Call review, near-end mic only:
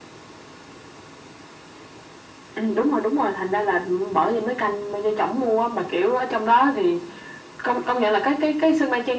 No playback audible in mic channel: No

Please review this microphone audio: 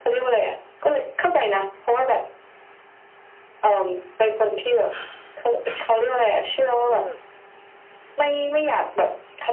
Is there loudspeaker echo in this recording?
Yes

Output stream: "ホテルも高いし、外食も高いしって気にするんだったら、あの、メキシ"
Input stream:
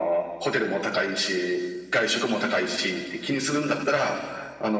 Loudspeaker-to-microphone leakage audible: Yes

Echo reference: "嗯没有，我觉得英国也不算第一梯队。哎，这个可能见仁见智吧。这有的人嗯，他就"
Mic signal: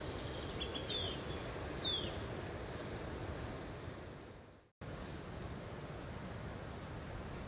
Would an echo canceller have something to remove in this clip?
No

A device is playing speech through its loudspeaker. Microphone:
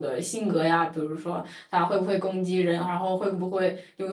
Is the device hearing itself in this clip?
No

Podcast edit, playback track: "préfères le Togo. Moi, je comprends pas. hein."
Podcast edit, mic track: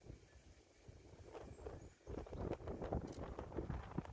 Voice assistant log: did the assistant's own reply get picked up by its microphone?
No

